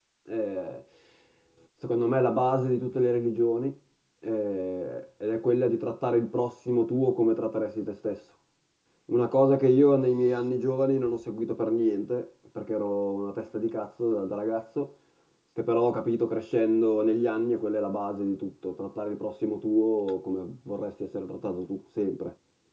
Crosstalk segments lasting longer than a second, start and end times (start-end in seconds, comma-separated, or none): none